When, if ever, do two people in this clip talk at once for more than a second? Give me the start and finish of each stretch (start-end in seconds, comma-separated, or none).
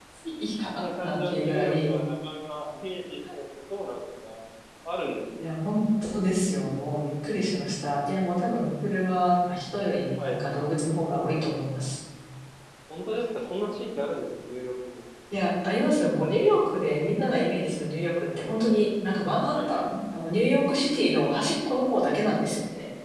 0.7-2.0